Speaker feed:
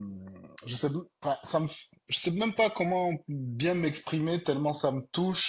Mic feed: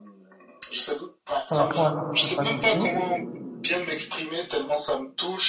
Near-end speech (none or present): present